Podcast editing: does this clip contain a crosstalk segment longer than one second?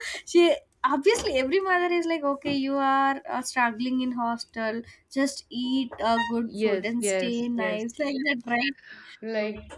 Yes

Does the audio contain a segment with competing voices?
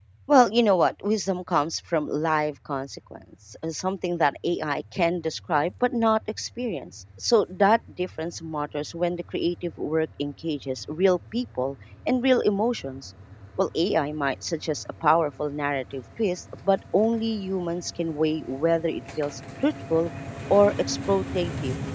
No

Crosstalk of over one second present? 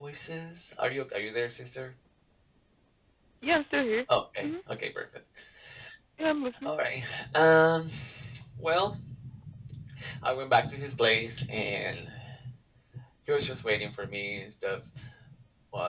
No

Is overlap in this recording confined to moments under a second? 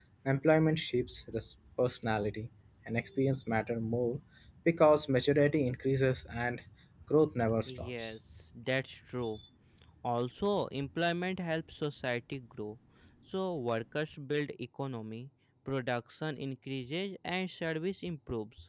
Yes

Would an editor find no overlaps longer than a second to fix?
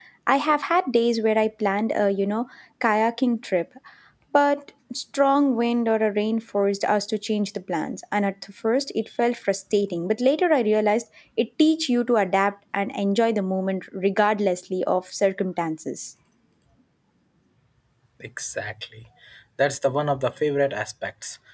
Yes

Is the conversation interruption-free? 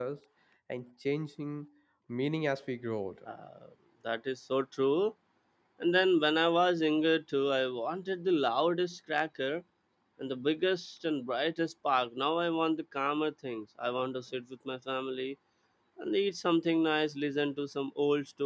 Yes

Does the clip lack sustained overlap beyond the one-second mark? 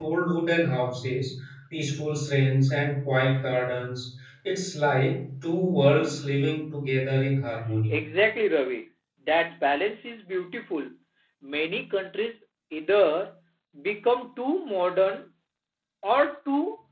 Yes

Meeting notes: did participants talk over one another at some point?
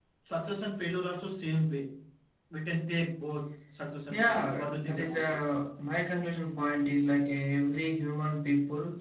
Yes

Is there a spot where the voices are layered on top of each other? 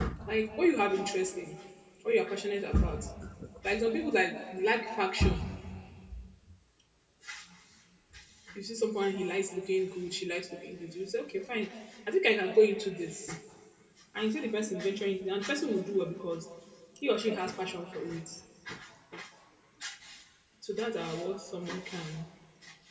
No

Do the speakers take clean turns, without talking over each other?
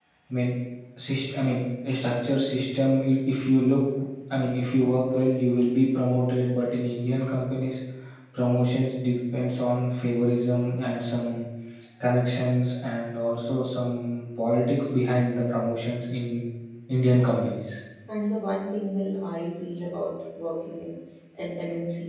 Yes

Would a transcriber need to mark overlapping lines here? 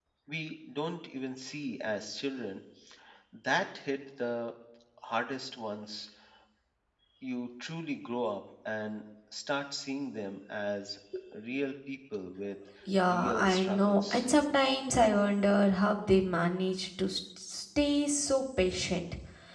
Yes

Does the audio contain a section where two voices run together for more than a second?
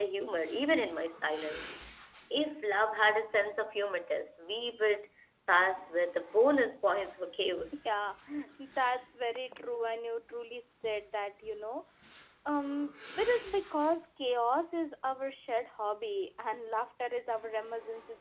No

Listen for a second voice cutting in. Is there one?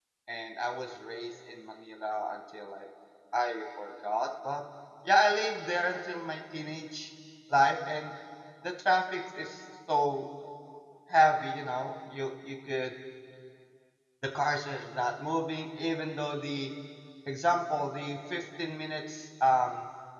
No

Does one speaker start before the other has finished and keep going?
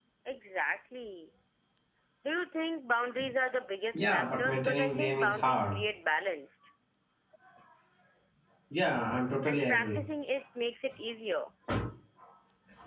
Yes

